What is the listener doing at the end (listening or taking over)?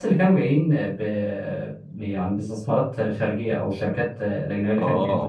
taking over